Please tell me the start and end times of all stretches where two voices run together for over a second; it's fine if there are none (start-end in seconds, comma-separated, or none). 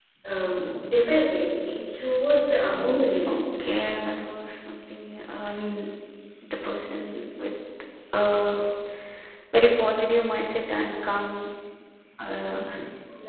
none